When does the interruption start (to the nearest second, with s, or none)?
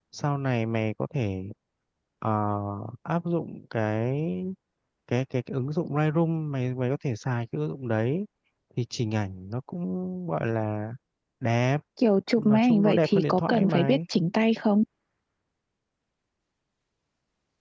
12 s